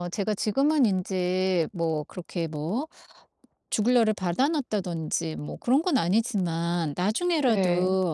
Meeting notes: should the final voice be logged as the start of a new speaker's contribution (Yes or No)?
No